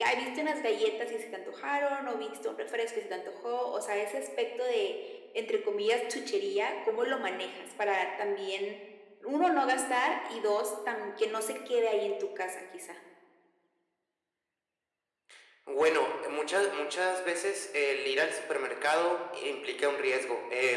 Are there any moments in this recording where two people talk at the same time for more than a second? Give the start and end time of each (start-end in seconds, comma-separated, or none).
none